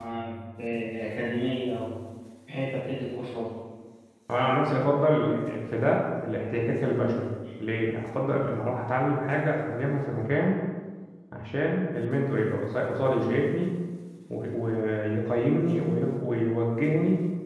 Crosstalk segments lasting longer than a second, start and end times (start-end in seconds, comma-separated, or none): none